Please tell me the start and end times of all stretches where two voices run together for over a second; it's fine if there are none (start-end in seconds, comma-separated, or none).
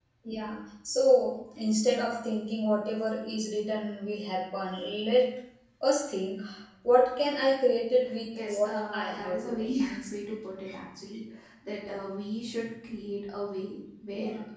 8.5-9.7